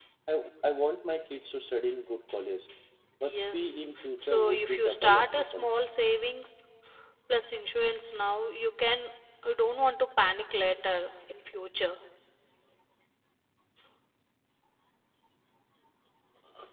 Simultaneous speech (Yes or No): Yes